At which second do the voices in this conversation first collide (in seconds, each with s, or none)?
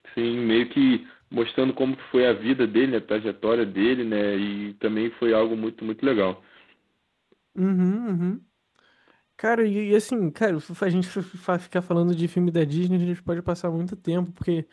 none